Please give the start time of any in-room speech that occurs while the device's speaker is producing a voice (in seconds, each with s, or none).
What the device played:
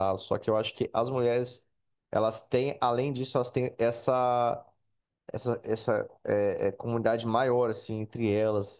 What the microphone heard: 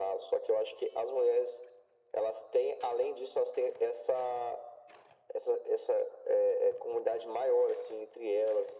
none